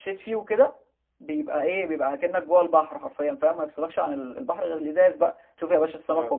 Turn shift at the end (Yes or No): No